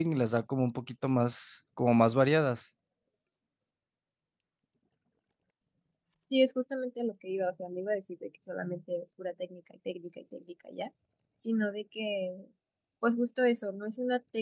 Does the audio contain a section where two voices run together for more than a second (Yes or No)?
No